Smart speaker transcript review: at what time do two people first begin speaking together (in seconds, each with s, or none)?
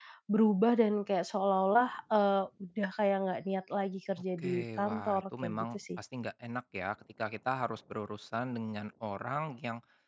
4.4 s